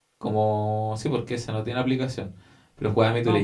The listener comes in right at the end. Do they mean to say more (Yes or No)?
No